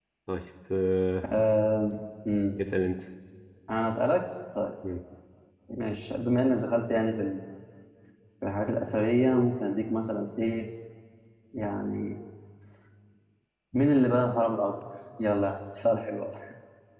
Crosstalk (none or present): none